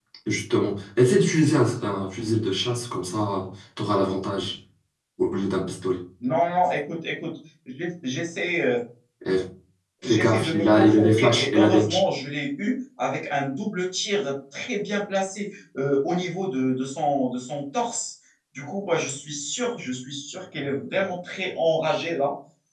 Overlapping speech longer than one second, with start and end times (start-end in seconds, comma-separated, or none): 10.0-11.9